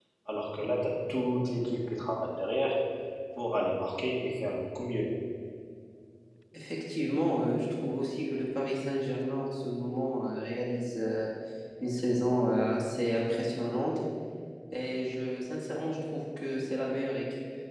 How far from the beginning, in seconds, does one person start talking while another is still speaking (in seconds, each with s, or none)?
none